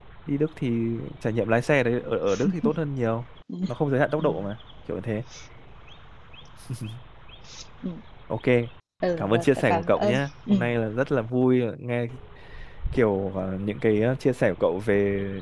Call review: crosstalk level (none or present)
present